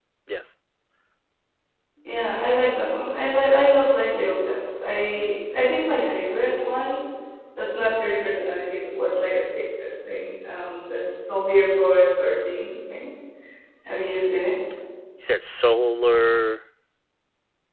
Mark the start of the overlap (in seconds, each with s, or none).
none